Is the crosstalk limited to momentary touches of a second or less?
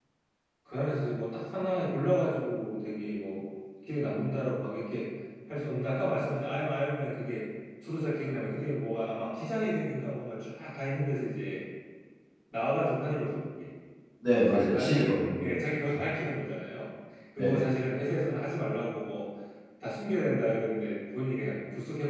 No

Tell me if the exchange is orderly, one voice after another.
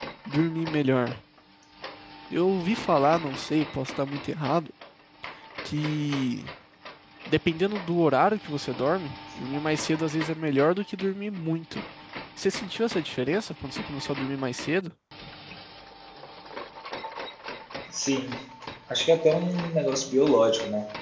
Yes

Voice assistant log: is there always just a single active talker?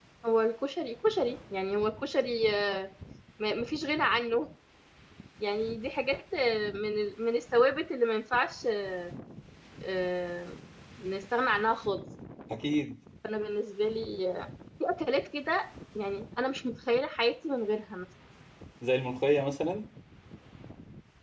Yes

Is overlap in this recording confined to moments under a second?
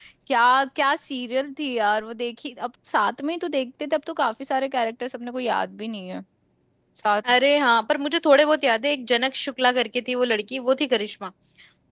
Yes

